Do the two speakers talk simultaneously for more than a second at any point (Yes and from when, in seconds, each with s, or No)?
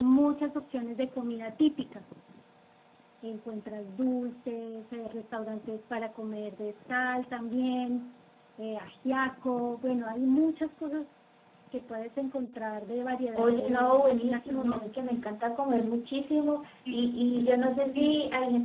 Yes, from 13.3 s